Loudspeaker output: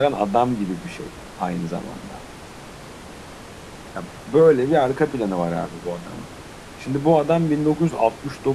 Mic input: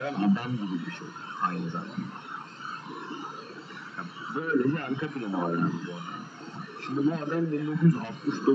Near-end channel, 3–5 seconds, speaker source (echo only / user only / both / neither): echo only